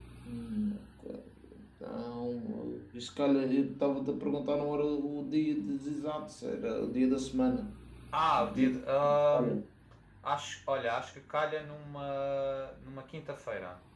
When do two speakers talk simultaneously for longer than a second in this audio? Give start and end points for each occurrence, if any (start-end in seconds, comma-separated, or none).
8.3-9.6